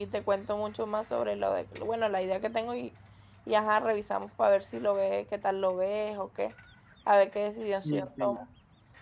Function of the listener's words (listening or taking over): taking over